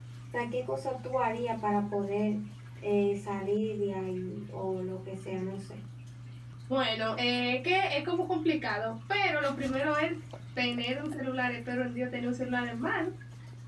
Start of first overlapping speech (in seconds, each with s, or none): none